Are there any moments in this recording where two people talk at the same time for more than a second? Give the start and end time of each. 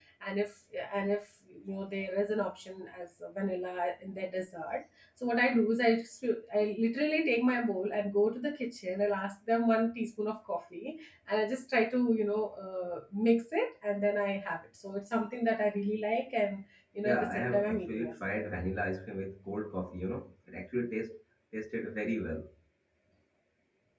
17.0-18.3

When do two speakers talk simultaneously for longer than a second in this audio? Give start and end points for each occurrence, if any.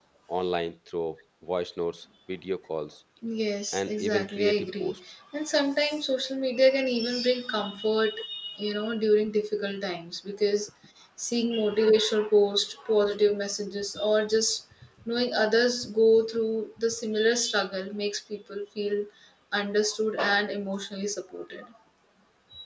3.7-4.9

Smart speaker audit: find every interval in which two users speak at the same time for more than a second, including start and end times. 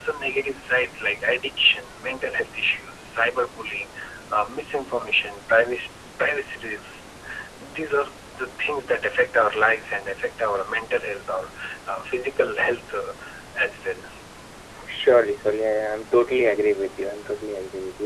none

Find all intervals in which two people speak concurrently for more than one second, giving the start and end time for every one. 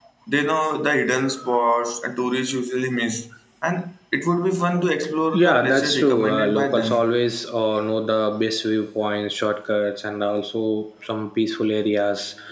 5.3-7.0

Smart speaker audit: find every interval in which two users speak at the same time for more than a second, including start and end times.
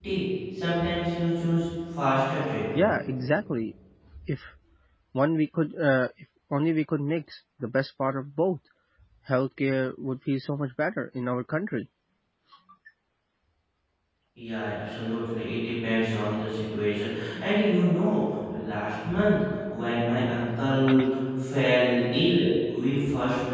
none

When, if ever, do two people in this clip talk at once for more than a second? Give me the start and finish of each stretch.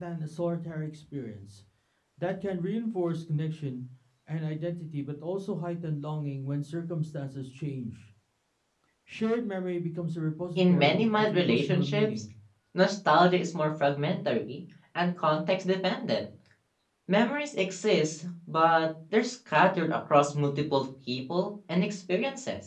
10.6-12.1

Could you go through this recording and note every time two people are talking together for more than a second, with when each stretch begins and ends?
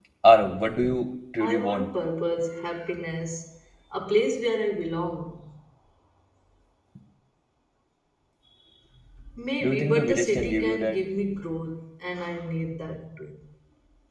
9.6-11.0

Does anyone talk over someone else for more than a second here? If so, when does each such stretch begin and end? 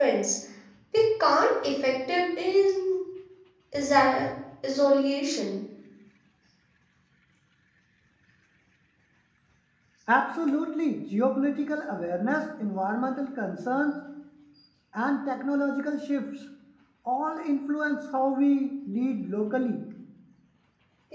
none

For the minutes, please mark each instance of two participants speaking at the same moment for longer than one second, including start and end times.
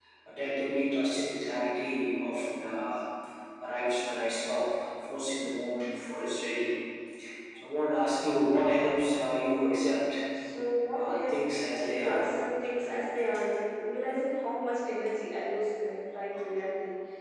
11.0-12.3

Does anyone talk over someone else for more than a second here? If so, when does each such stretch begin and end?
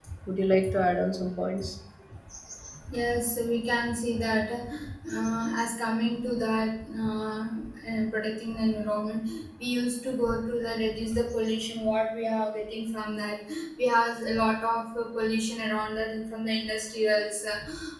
none

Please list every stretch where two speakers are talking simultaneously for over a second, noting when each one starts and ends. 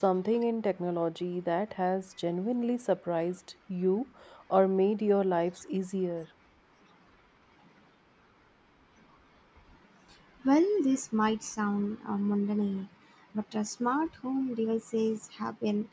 none

